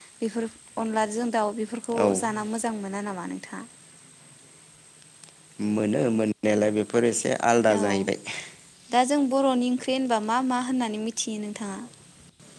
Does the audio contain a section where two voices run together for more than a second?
No

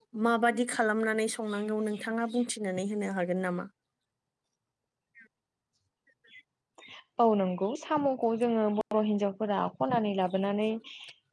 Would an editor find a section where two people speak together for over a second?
No

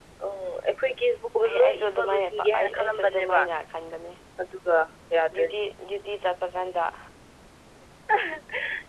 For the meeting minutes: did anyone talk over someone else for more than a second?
Yes, from 1.4 s

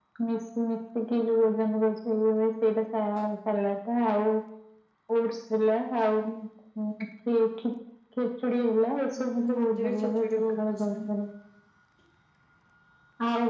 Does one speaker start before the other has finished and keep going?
Yes, from 9.2 s

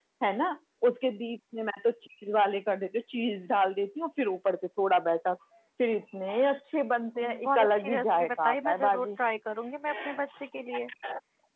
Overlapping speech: Yes, from 7.2 s

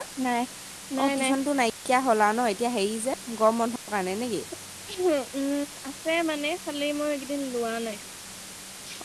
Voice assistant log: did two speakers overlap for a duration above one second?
No

